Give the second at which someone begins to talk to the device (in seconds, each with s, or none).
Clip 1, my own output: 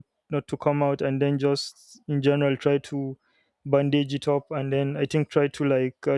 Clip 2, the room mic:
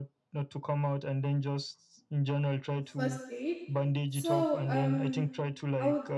2.8 s